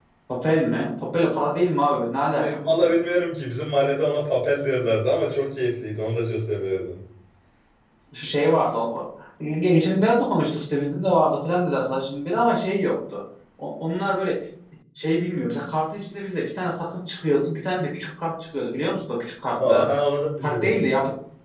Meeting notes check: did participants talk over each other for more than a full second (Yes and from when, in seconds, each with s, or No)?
No